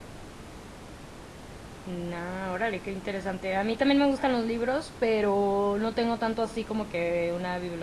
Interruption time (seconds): none

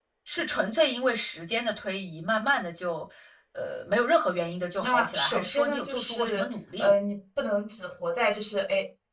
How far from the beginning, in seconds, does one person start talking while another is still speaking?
5 s

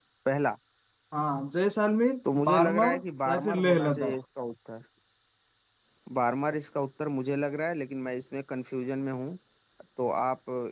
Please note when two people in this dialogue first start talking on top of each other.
2 s

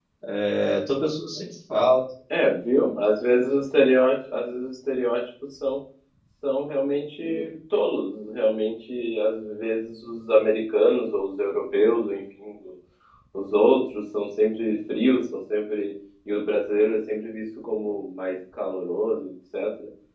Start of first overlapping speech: none

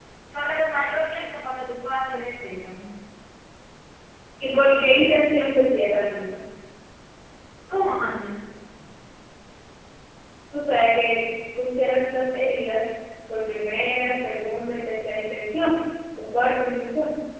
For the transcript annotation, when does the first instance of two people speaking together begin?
none

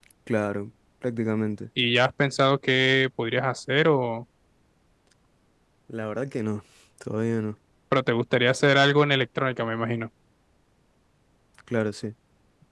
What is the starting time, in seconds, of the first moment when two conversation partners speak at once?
none

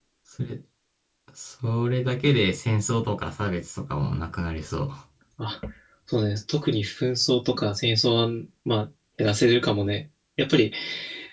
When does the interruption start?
none

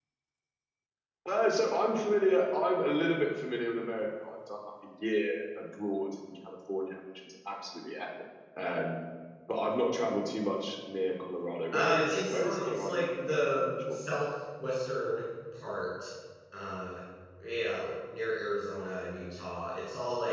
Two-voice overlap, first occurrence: 12 s

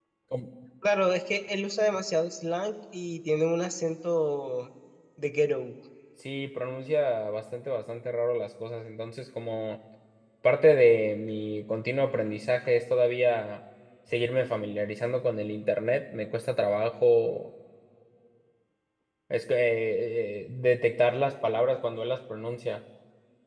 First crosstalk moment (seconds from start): none

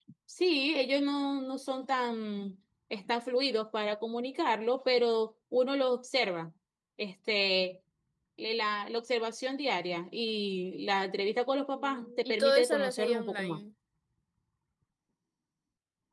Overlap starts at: 12 s

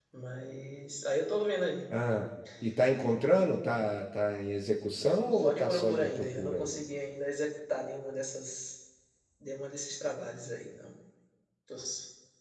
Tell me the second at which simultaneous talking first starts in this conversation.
5 s

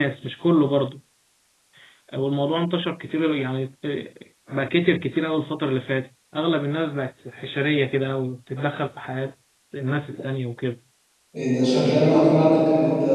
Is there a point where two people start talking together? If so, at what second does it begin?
none

